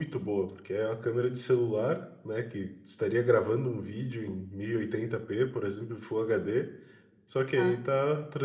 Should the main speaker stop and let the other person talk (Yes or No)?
No